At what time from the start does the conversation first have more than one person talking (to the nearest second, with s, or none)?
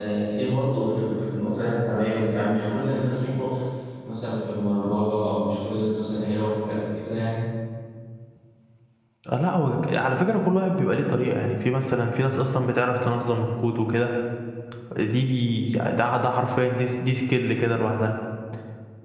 none